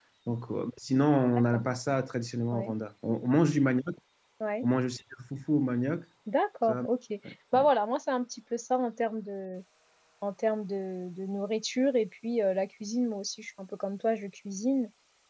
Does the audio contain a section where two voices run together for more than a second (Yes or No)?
No